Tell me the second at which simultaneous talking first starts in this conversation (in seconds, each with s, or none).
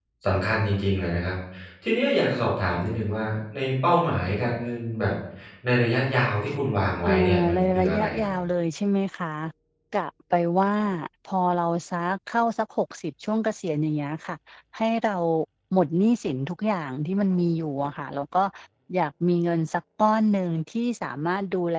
7.0 s